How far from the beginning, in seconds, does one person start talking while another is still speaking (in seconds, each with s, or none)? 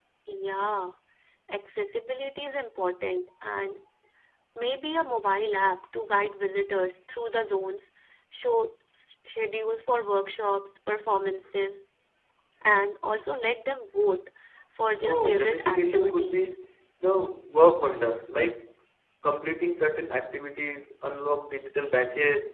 15.1 s